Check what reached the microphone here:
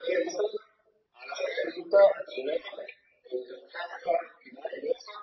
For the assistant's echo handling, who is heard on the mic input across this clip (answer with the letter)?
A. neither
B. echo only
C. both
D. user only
B